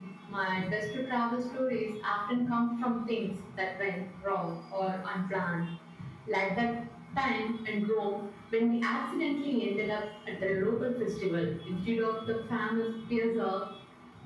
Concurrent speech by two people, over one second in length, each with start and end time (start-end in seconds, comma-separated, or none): none